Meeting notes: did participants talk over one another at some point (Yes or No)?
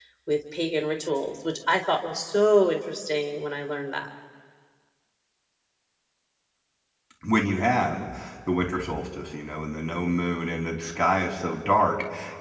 No